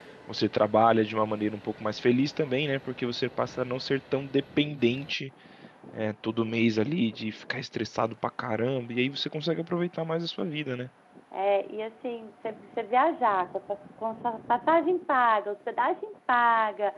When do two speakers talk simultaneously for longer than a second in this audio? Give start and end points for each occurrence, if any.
none

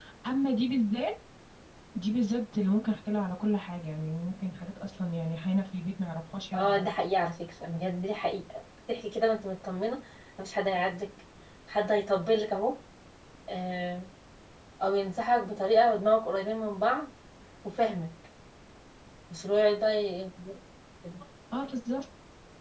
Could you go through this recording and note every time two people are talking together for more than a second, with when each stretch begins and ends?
none

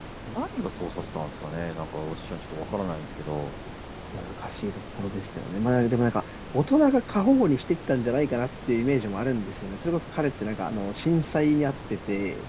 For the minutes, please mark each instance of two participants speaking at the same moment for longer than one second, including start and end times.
none

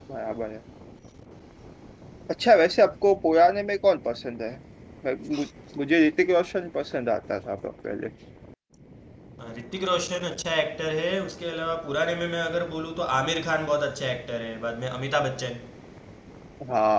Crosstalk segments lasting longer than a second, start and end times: none

